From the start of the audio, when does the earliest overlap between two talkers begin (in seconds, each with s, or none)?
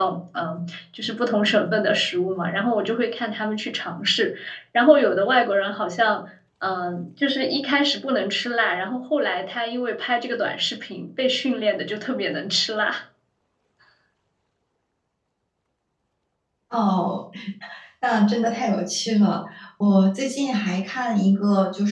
none